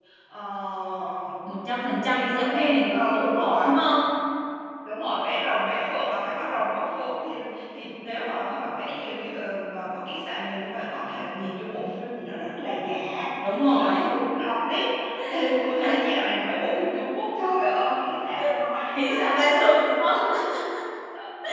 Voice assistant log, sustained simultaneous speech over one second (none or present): present